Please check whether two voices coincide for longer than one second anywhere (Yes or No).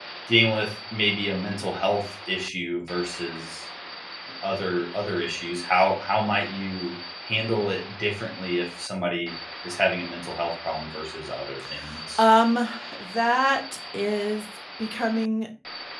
No